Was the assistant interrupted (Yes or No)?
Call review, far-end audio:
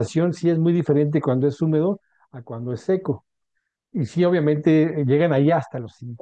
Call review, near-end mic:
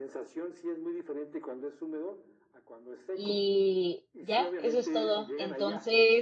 Yes